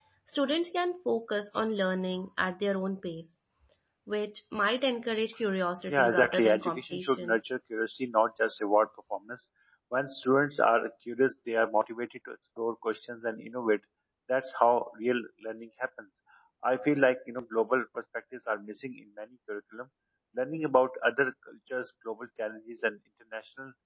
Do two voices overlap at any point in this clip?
Yes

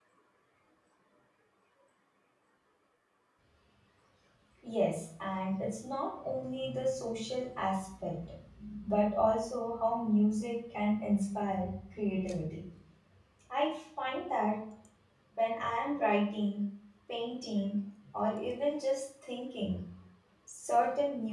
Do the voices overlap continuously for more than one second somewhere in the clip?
No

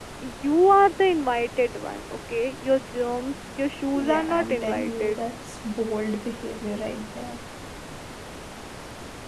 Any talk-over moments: Yes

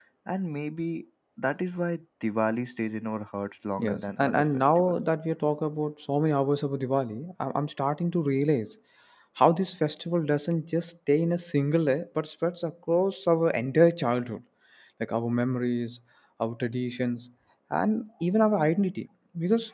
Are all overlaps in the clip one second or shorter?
No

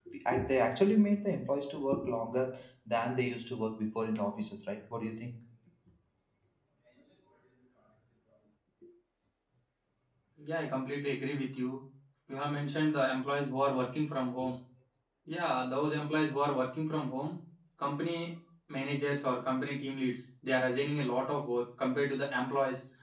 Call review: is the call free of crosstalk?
Yes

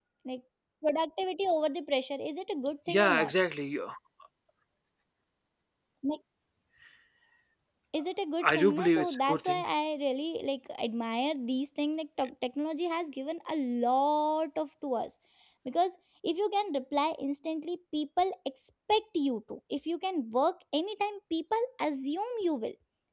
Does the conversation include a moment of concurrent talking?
Yes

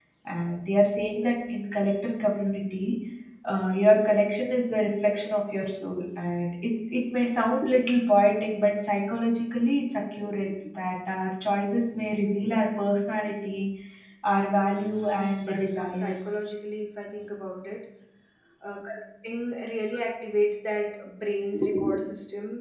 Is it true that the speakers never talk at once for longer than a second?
No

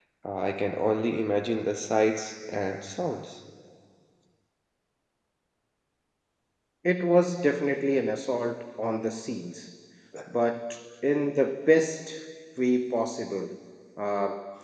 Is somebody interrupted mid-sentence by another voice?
No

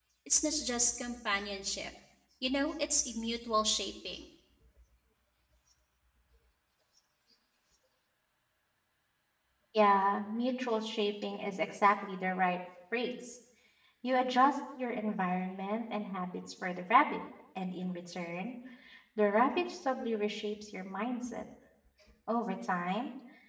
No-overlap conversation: Yes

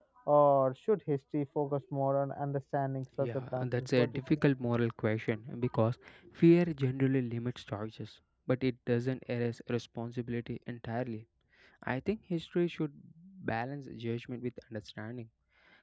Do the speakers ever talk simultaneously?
Yes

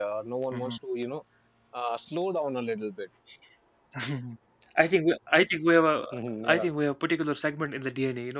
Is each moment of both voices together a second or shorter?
Yes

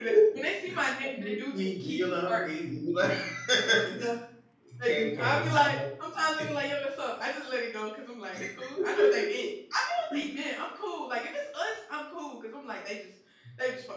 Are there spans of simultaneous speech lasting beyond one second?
Yes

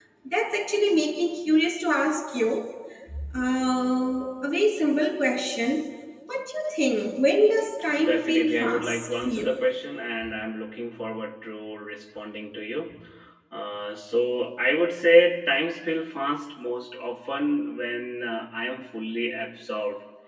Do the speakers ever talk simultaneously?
Yes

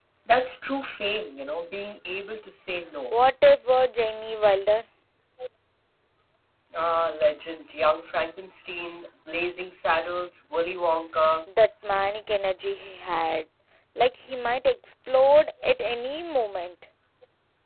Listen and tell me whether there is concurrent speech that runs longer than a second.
No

